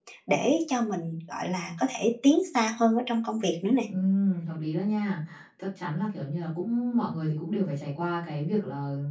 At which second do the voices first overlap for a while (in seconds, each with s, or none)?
none